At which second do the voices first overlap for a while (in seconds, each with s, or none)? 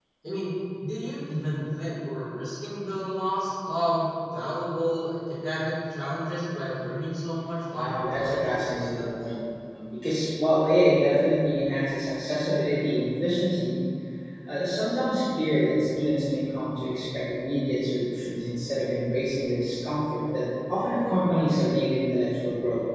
7.7 s